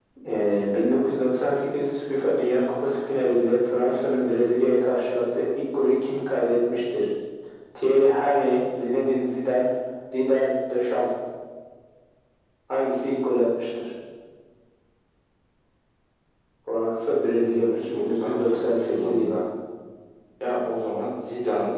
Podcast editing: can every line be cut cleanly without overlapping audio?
No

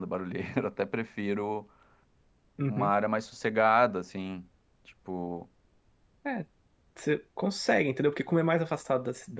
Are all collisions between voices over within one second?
Yes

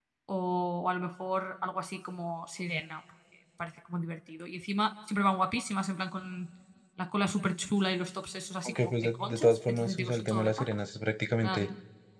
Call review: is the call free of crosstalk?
No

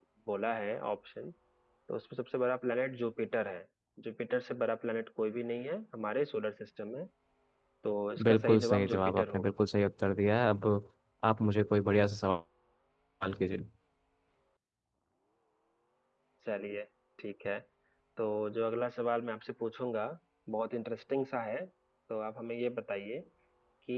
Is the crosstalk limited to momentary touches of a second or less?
No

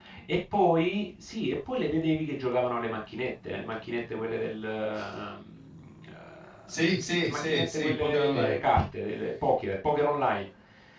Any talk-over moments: Yes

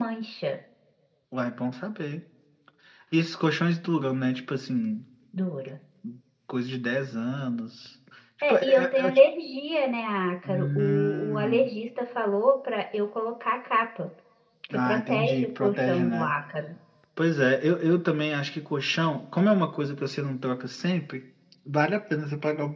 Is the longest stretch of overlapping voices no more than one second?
No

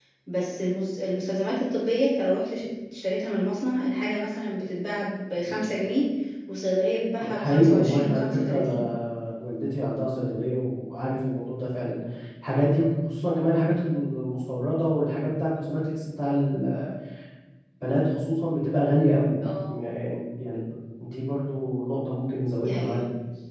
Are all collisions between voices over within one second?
No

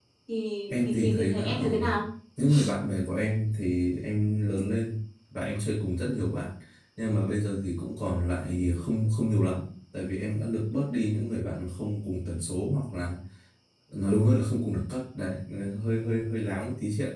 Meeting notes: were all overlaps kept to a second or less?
No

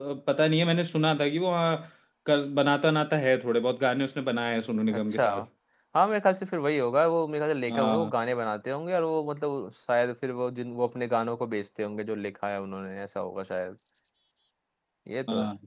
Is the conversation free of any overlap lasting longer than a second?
Yes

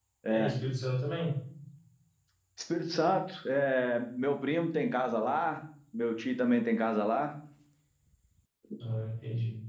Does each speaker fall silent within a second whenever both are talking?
Yes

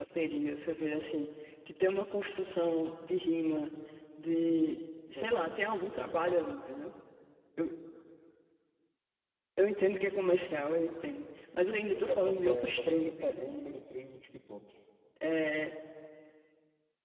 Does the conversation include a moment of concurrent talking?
Yes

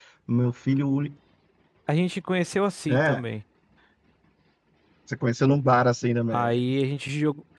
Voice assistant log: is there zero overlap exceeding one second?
Yes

